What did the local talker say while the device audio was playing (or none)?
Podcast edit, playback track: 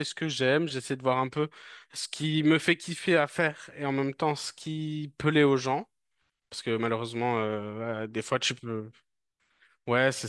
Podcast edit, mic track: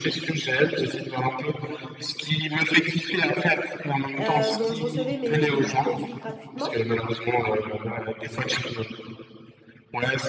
euh, dont je recevais mes produits gratuitement.